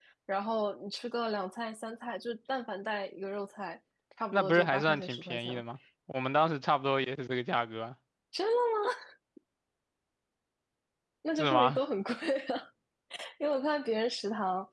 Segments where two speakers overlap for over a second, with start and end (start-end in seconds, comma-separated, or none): 4.3-5.6